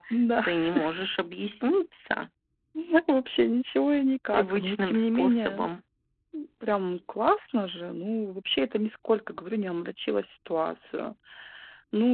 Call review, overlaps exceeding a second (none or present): present